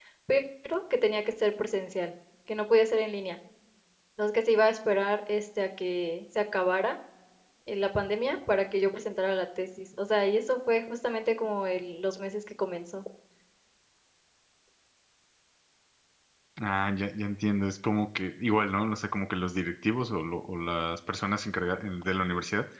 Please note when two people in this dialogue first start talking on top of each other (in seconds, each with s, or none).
none